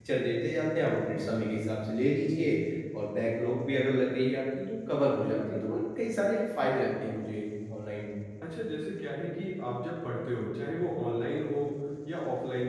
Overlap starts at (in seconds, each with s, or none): none